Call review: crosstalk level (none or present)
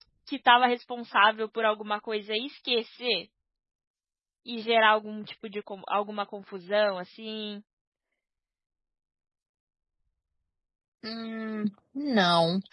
none